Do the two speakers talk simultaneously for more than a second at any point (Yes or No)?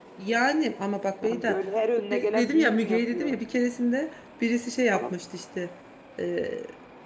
Yes